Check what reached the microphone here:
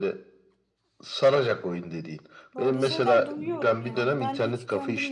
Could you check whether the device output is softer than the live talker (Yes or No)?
No